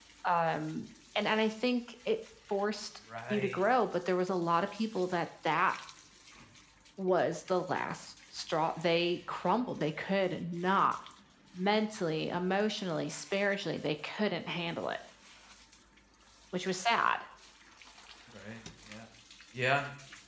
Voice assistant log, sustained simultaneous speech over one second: none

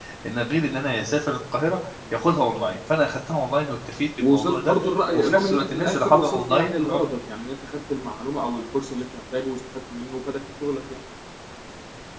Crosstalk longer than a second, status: present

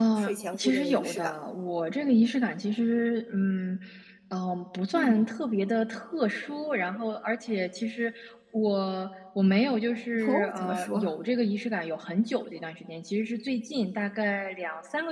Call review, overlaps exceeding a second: present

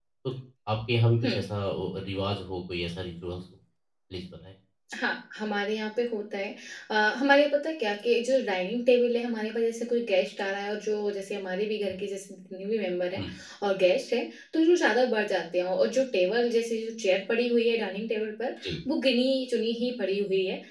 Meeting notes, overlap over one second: none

